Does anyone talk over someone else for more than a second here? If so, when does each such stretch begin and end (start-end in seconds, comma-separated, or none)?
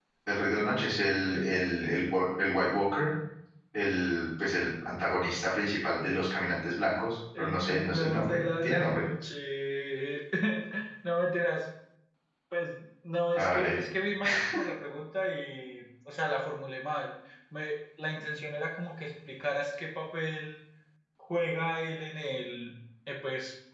7.4-9.0